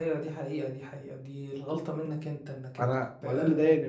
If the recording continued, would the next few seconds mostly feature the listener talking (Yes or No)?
Yes